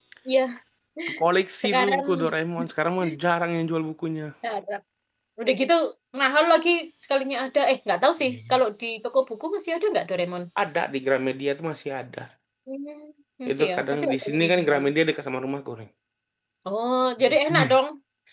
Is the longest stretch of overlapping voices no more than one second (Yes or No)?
No